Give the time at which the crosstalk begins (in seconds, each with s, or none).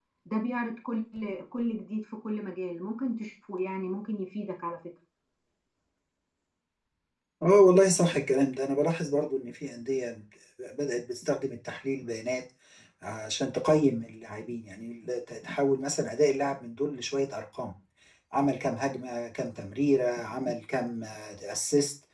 none